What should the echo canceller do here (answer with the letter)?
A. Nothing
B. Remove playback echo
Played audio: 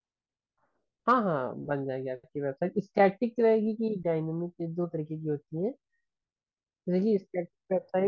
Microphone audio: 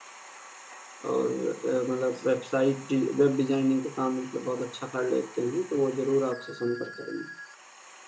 A